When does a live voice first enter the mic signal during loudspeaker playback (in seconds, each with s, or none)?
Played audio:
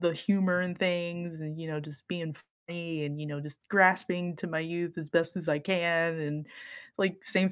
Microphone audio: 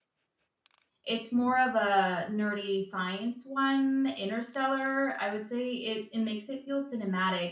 1.0 s